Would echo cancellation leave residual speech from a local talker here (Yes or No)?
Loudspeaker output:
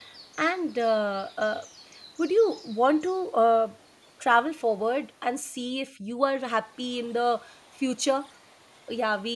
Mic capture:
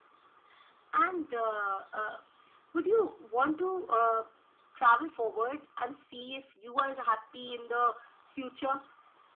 No